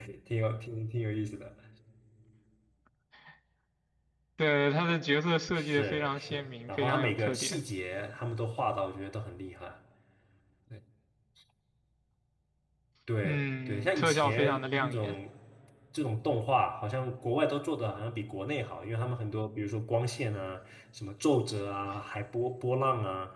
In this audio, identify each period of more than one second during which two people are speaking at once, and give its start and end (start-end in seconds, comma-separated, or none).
5.5-7.6, 13.2-15.2